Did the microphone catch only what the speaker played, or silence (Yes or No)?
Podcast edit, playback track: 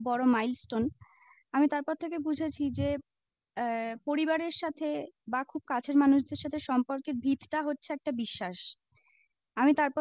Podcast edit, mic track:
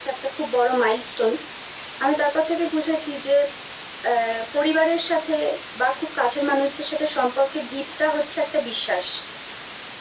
Yes